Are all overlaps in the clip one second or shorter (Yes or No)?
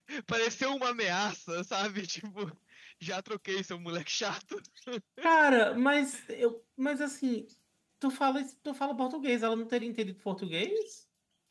Yes